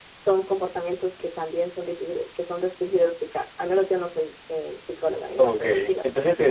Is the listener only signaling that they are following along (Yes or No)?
No